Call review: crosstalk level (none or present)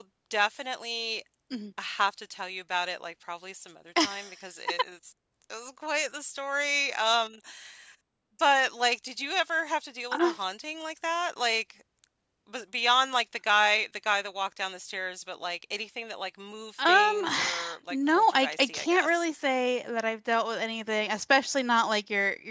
present